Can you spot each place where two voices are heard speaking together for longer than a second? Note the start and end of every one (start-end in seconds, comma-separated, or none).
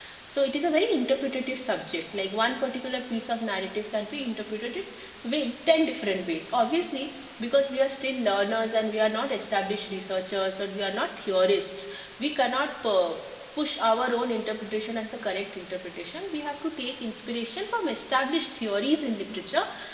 none